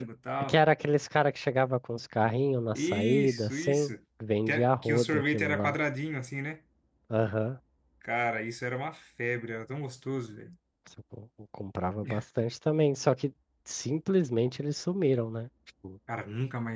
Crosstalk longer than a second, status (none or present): present